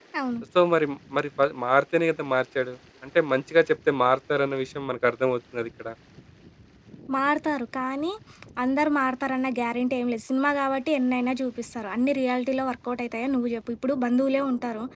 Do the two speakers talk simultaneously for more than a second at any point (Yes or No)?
No